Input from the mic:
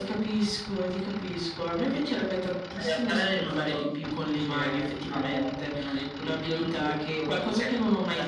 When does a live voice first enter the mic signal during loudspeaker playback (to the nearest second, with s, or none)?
none